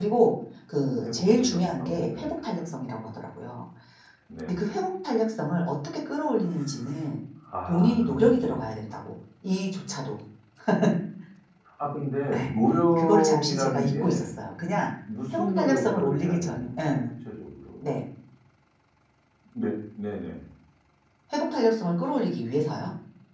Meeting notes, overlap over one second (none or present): present